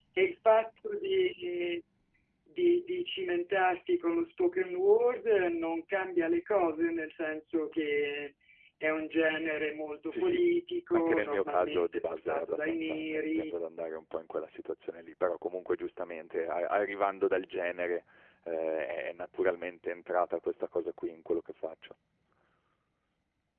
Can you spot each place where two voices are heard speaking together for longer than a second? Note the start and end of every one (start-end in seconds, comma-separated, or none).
10.9-13.6